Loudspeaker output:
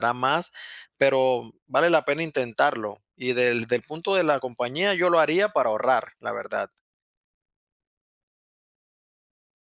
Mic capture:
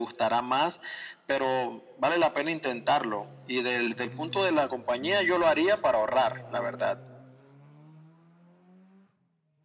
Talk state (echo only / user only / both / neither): echo only